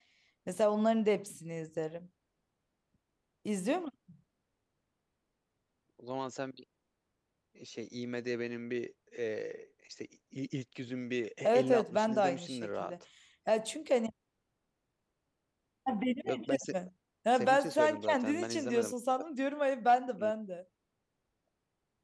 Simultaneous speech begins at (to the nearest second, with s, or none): 11 s